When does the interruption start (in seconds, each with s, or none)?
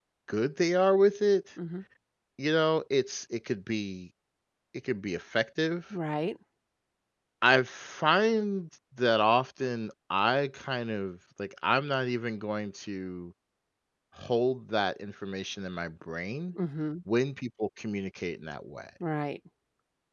none